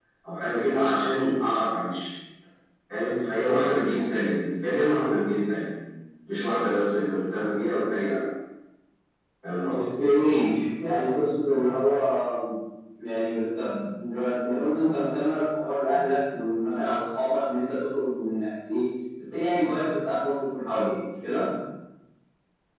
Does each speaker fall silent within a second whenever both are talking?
Yes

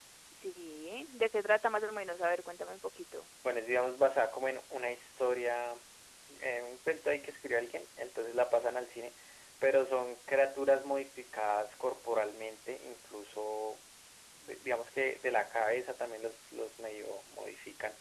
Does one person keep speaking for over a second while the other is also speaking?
No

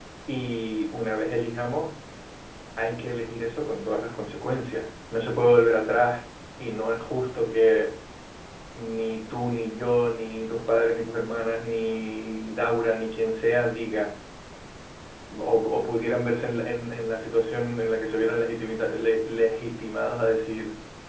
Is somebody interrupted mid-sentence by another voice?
No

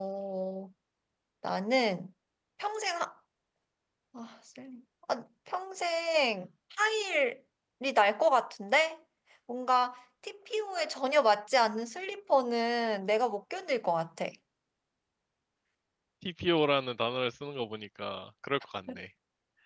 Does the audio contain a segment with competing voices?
No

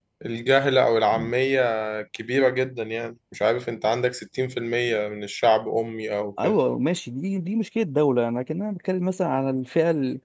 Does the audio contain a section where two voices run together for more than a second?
No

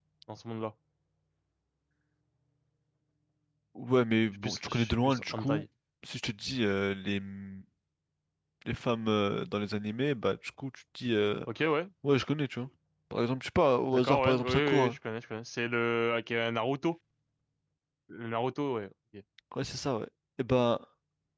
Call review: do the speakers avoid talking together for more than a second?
No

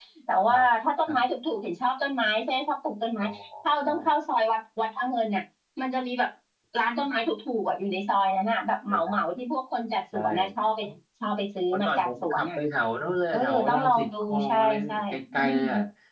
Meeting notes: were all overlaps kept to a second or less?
No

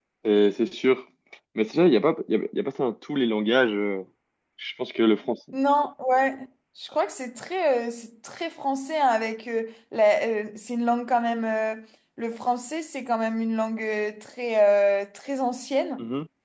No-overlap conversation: Yes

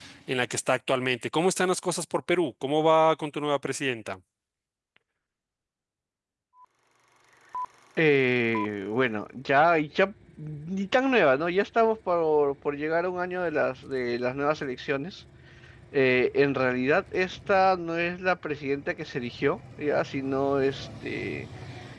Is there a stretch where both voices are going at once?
No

